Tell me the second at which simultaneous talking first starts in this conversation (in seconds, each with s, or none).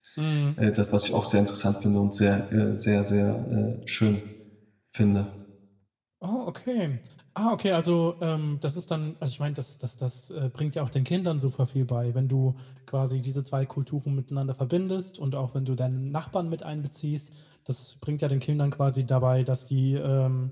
none